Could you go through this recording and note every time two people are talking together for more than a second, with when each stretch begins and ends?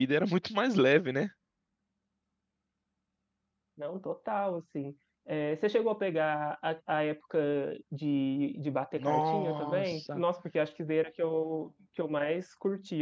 9.0-10.2

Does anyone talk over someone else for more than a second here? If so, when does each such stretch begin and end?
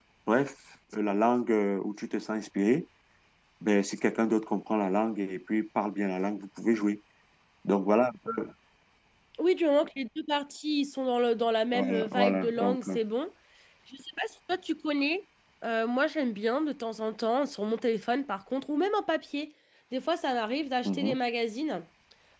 11.7-13.0

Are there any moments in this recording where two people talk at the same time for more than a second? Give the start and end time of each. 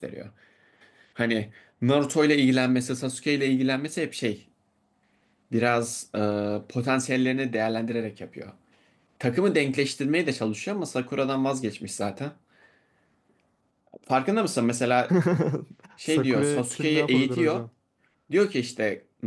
16.1-17.6

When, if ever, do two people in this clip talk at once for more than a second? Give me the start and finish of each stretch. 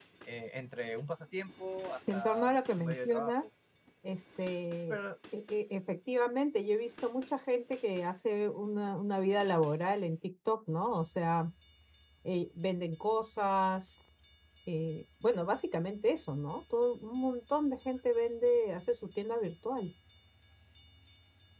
2.1-3.3

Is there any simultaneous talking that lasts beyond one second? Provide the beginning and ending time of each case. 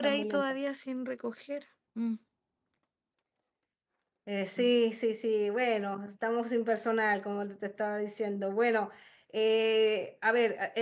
none

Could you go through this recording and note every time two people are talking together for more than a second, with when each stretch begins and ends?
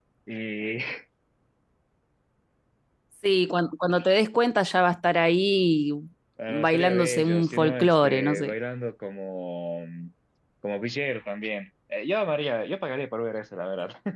6.5-8.5

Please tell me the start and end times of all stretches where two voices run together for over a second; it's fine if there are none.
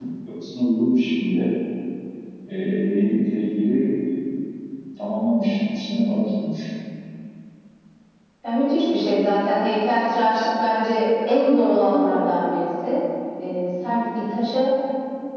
none

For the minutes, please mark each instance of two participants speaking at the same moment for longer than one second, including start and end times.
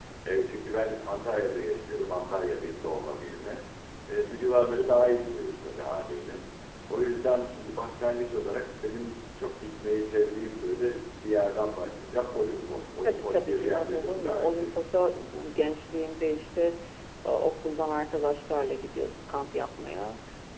13.0-14.7

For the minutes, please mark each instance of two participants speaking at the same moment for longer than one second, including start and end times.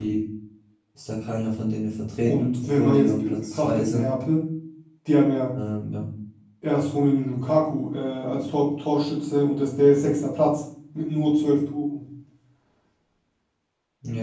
2.2-4.1

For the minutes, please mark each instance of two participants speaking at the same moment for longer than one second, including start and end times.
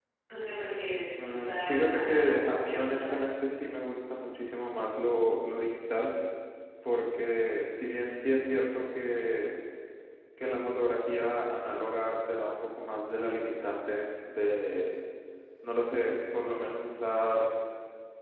1.3-3.1

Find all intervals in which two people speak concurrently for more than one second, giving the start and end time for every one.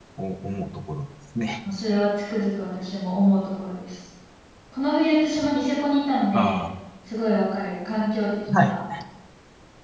none

